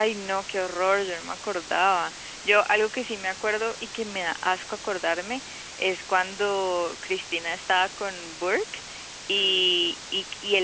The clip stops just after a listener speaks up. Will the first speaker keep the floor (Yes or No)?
Yes